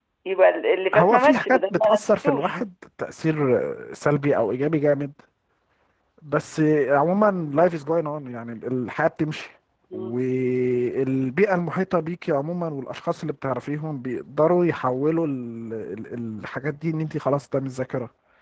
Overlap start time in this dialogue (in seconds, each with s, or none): 0.9 s